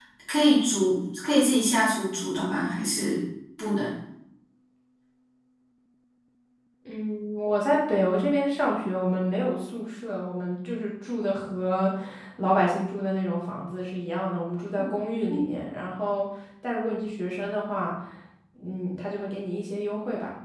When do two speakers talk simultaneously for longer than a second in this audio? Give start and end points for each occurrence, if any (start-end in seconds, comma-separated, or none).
none